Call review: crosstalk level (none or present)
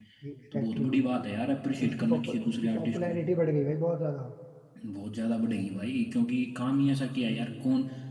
present